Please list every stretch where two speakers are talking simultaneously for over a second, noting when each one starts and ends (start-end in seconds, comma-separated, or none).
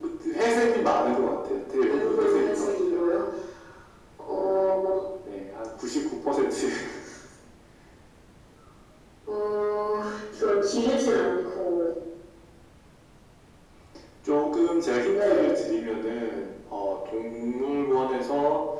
1.8-3.1